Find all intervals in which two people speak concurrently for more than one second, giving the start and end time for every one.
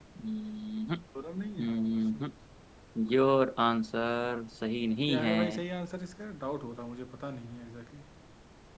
none

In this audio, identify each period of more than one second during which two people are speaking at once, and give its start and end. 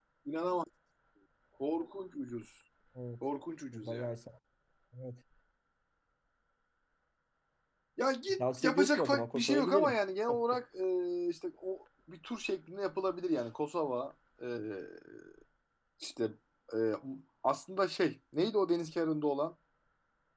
8.4-10.0

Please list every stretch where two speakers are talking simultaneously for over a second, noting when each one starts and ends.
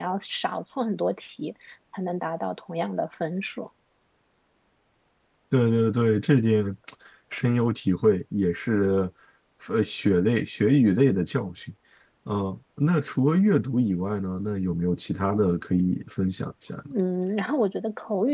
none

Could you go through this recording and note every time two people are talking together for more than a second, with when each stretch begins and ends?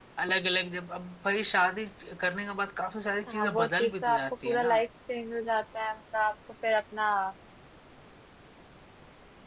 3.3-4.8

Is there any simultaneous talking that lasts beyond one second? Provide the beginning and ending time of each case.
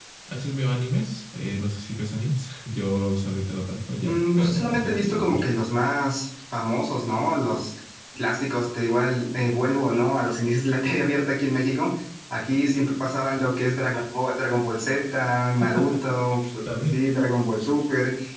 4.0-5.5

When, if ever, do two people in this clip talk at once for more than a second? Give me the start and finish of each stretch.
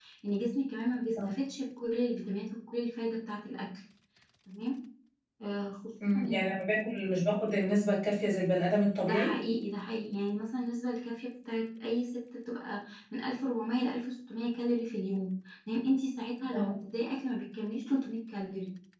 none

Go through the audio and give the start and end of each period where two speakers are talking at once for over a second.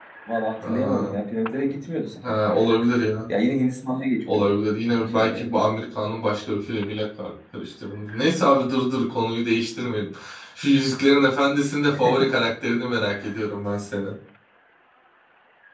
none

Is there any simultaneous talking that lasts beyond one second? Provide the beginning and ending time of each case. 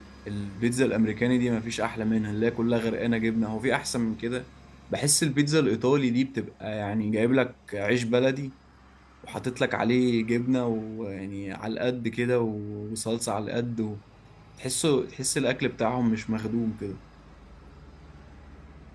none

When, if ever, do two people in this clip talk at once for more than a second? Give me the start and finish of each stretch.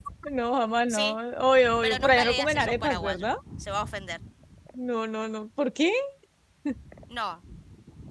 1.8-3.3

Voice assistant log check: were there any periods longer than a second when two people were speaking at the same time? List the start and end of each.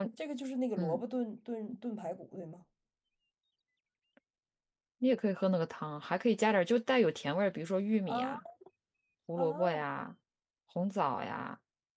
none

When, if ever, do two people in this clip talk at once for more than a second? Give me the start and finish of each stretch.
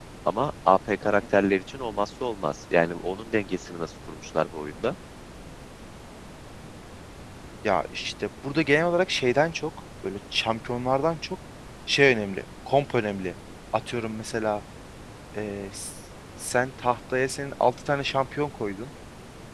none

